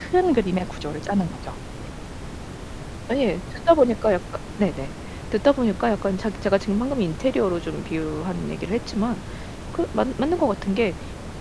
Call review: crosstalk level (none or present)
none